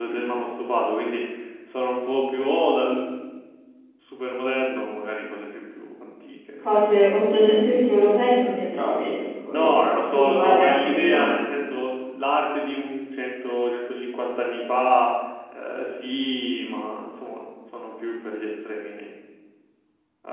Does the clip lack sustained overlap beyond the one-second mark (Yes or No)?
No